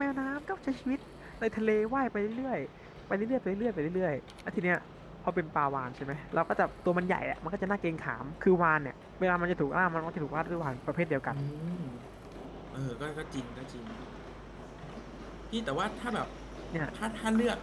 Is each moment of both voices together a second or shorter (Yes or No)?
Yes